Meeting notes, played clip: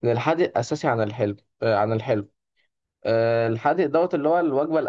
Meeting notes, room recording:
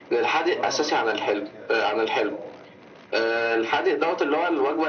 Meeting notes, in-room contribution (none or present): present